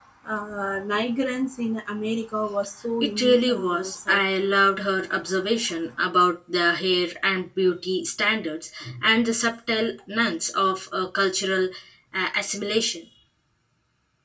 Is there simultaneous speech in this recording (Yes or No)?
Yes